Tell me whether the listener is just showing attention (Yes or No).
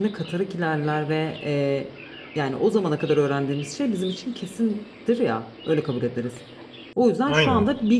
Yes